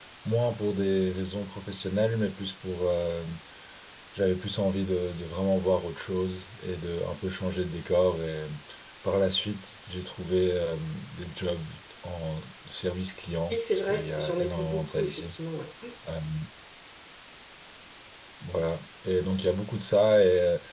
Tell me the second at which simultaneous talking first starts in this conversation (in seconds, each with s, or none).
13.5 s